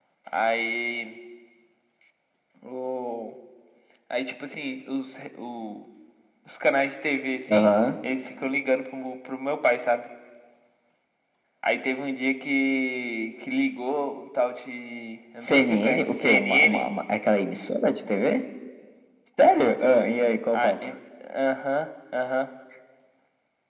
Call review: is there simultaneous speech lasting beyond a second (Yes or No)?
Yes